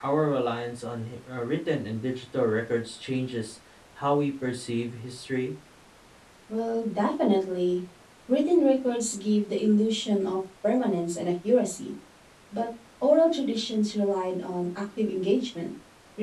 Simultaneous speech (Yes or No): No